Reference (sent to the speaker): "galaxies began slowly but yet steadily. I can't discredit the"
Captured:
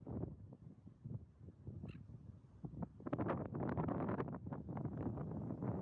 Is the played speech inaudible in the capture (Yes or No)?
Yes